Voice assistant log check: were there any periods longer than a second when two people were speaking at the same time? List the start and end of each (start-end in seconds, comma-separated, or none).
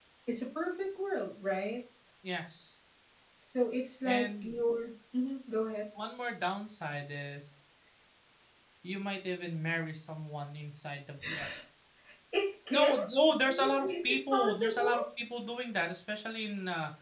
13.4-15.0